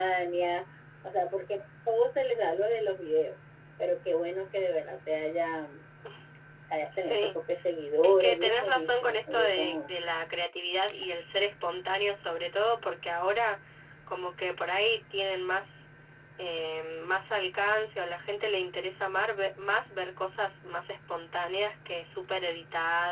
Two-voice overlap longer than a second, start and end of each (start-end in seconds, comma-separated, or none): 8.0-9.8